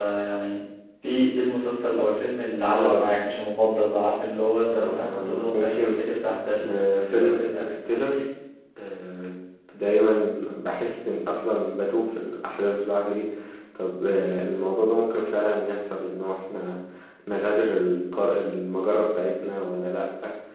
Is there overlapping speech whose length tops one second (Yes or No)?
Yes